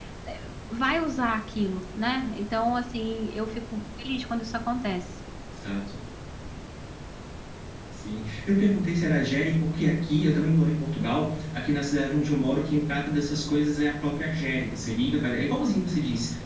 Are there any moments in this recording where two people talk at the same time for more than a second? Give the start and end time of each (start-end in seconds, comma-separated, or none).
none